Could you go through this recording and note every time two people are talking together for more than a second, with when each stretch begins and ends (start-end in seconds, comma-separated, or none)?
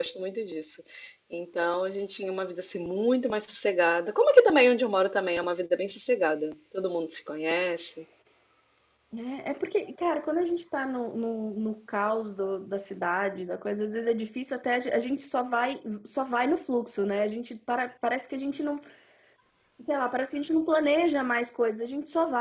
none